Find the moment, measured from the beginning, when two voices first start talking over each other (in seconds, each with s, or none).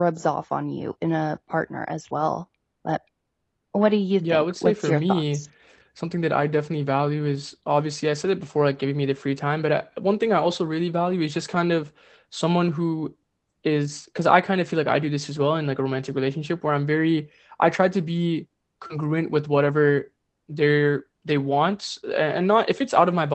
4.2 s